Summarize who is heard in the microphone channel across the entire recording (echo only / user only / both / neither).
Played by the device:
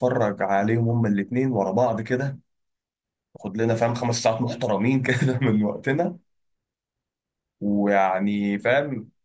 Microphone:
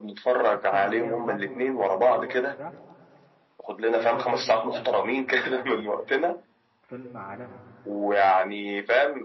both